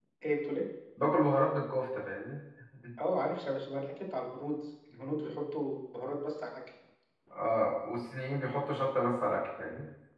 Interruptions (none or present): none